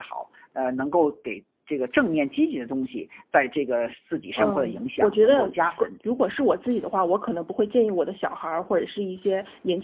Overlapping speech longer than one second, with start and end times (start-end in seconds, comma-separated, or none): 4.4-5.9